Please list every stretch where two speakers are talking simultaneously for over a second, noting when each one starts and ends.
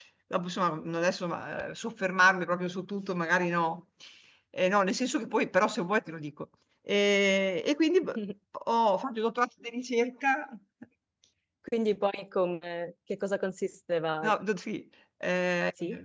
none

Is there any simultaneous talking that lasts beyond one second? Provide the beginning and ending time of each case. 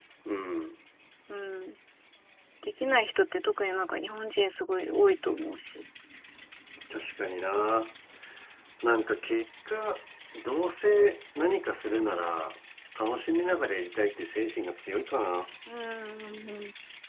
none

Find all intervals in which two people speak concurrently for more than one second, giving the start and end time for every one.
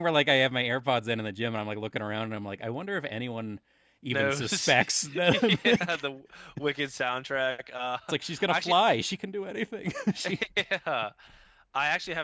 4.1-6.0

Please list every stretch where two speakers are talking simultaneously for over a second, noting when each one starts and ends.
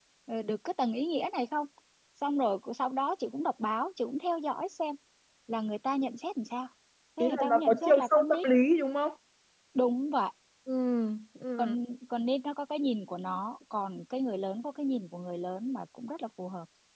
7.2-8.4

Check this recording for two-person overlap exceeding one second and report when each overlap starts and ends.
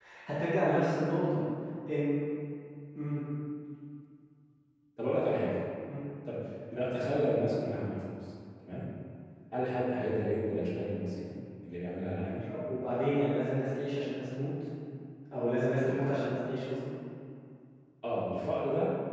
none

